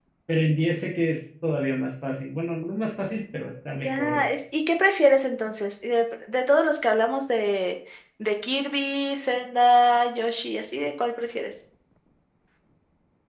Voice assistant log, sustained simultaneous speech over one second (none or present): none